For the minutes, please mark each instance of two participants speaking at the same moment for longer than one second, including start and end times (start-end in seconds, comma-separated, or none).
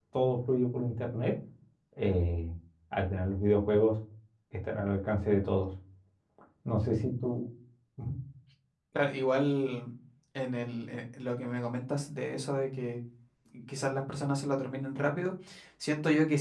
none